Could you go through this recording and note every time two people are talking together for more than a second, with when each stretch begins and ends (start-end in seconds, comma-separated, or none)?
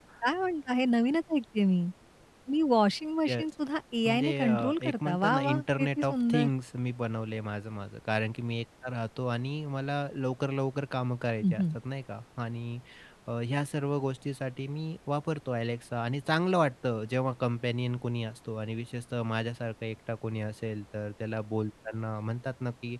4.0-6.5